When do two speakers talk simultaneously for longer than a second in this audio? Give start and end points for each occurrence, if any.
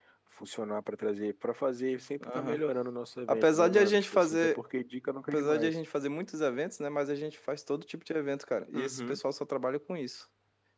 3.3-4.6

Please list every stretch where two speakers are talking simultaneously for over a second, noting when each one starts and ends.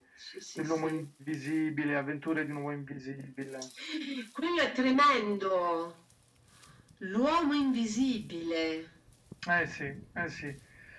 none

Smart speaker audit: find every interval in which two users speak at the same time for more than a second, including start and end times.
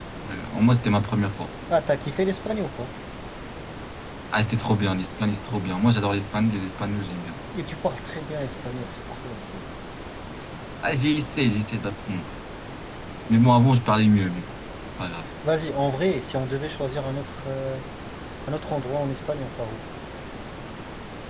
none

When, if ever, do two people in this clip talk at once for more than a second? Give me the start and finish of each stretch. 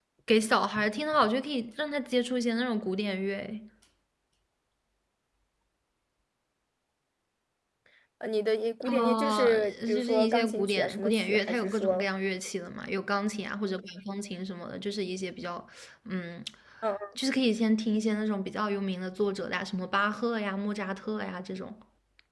8.9-12.0

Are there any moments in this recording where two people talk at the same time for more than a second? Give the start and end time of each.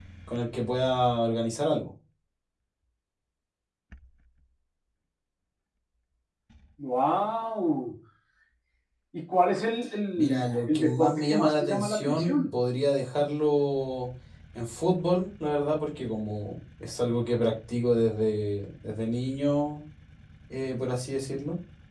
10.2-12.5

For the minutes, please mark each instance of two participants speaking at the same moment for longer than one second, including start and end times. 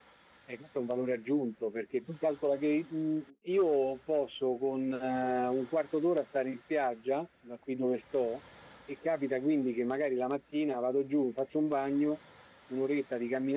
none

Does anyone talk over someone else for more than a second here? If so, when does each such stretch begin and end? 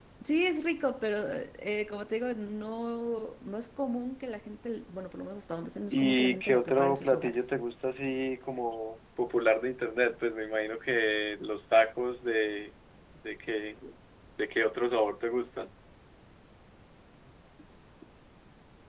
5.9-7.5

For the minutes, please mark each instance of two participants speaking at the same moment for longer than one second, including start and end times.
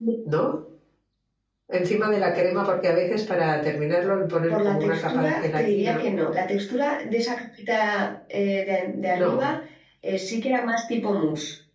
4.5-6.1

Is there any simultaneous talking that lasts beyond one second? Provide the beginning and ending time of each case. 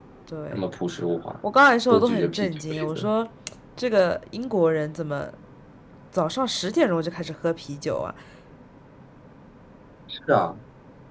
1.9-3.1

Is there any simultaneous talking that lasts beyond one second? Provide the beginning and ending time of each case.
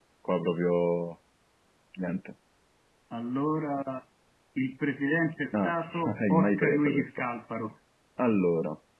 5.6-7.2

